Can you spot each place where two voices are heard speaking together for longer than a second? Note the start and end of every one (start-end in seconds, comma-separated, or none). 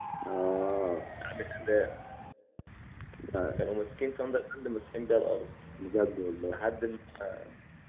none